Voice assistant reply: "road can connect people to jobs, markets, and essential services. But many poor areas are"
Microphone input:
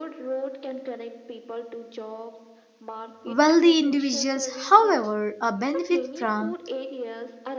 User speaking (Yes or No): Yes